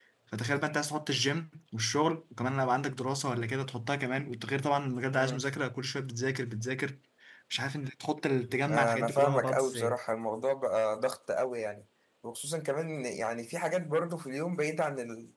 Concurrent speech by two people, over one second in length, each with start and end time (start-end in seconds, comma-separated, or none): 8.7-10.0